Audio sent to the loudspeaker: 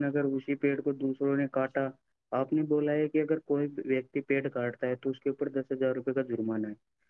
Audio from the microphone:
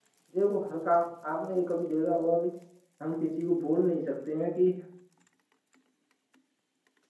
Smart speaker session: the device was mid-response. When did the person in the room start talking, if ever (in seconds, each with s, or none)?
0.3 s